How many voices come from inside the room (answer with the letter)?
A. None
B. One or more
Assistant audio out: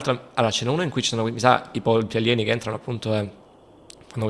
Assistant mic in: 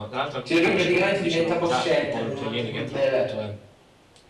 B